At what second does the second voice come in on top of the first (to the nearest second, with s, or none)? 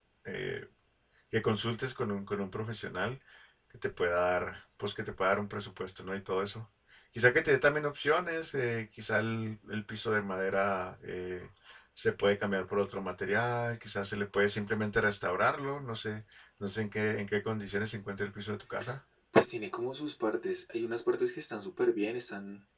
none